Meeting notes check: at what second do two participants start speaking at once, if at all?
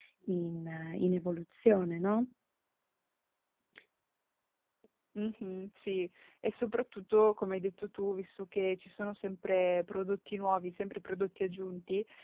none

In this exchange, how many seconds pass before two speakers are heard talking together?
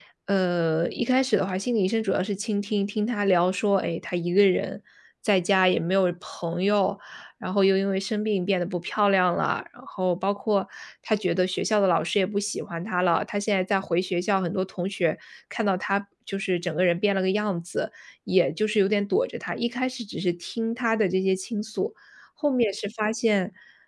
none

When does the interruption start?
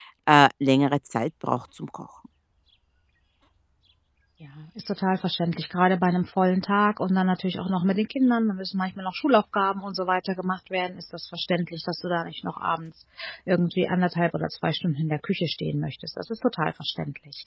none

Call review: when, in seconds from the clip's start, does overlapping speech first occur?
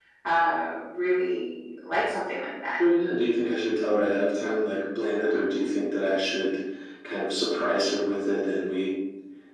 none

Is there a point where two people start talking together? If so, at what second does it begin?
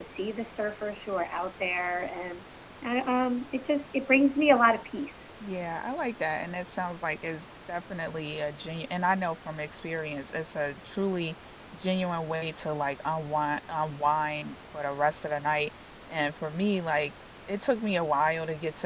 none

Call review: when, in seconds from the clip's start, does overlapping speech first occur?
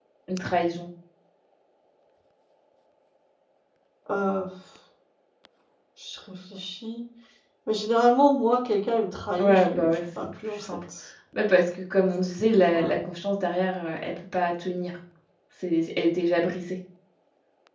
9 s

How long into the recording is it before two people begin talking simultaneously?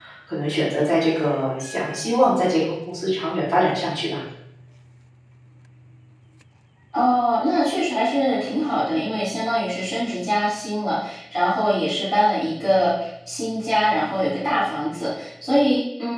none

